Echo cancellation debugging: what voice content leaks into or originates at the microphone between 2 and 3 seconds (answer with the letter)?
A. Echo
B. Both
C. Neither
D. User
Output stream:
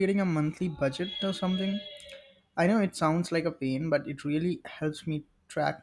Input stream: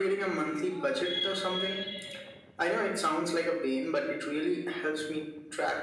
A